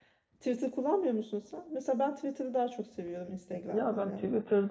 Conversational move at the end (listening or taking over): taking over